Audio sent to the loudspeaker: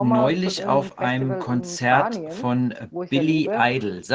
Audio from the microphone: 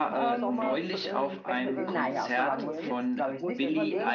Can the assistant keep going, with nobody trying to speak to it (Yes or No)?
No